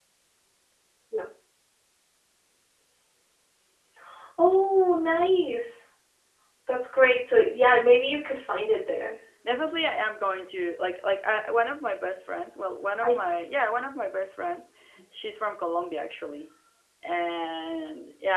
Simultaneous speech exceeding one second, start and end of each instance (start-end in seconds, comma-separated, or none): none